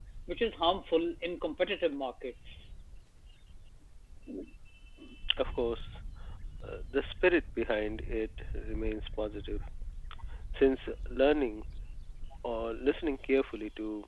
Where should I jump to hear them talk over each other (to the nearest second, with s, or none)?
none